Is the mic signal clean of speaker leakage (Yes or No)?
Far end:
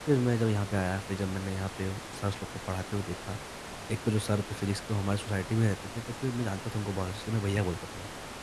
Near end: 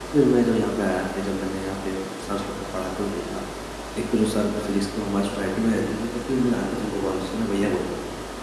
No